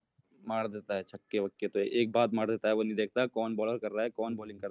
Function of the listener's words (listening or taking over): taking over